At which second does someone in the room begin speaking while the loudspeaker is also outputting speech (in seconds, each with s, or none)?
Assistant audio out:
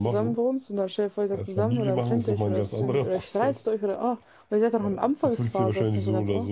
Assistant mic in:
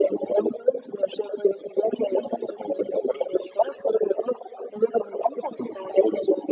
none